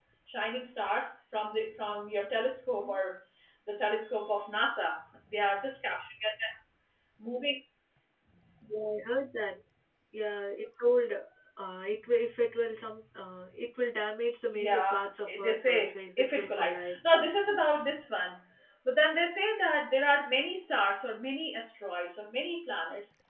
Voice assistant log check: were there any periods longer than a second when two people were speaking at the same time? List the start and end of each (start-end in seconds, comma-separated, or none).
15.4-17.0